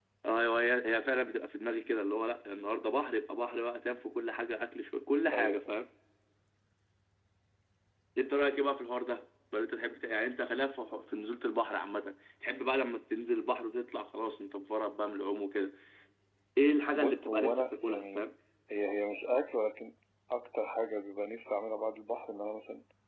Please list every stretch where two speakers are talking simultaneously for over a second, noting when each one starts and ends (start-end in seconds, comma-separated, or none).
16.9-18.3